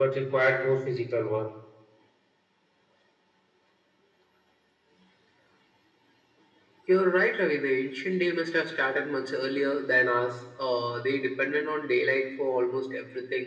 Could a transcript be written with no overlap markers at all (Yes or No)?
Yes